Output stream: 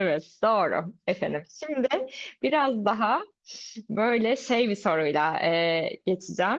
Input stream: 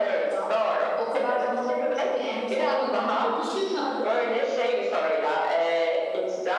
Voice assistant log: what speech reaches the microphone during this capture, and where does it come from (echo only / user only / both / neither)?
both